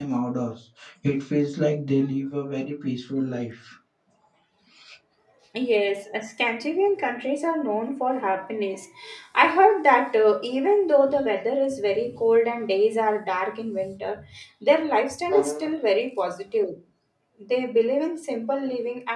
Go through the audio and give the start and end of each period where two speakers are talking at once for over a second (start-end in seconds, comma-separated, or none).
none